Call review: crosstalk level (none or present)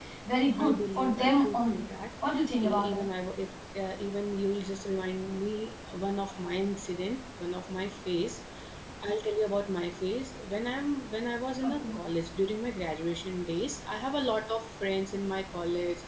present